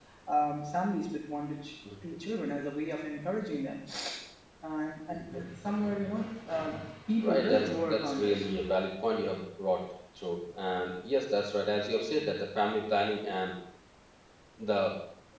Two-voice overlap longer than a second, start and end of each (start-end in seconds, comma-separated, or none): 7.2-8.4